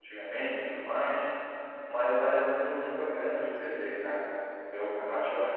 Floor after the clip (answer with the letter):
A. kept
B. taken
A